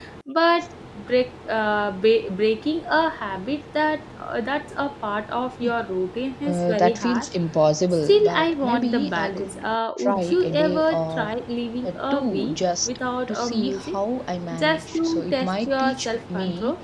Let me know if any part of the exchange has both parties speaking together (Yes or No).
Yes